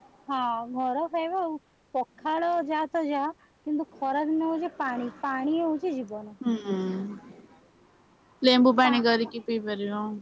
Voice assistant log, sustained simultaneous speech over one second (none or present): none